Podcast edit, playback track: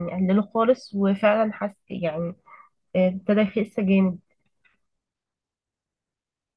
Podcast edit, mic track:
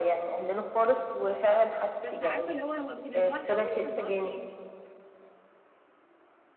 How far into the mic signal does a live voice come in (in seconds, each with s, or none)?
2.0 s